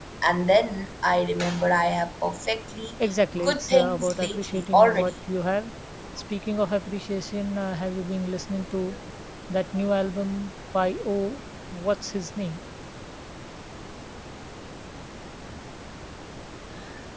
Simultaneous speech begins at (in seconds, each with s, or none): 3.4 s